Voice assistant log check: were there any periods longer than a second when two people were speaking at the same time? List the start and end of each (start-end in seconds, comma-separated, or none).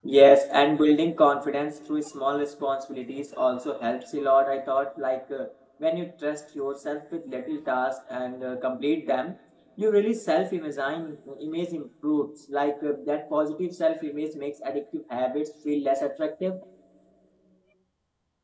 none